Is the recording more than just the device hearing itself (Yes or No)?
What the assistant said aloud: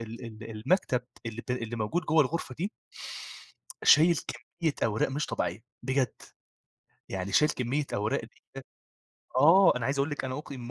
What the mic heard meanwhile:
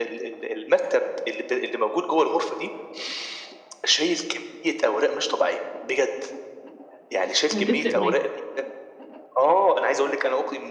Yes